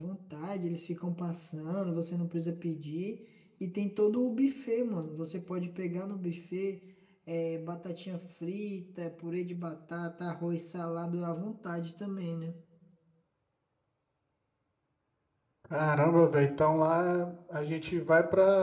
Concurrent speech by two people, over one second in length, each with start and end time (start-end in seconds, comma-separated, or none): none